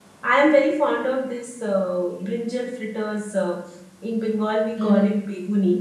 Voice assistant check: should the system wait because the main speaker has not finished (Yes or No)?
Yes